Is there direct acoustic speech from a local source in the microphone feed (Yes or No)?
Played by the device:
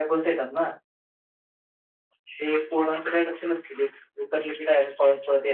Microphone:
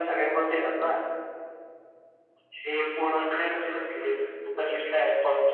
No